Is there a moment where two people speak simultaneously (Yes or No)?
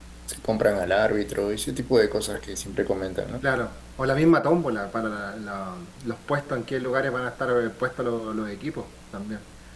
No